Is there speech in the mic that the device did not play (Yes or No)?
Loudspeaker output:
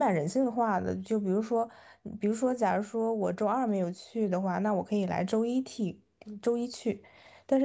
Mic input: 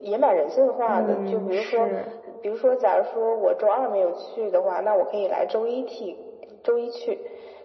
Yes